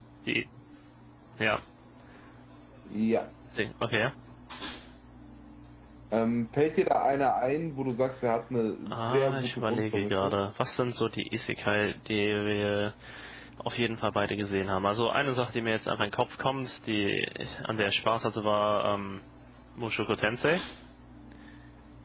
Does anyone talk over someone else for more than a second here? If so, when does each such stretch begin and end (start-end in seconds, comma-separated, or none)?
8.9-10.3